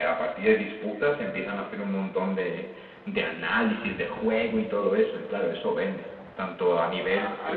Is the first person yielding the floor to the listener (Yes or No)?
Yes